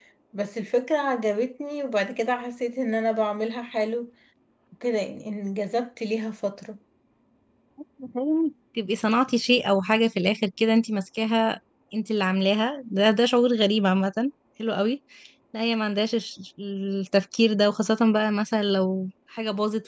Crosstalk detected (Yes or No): No